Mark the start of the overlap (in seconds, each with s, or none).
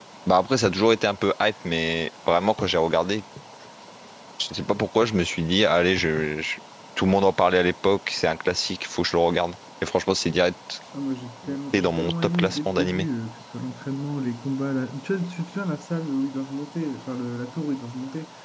11.5 s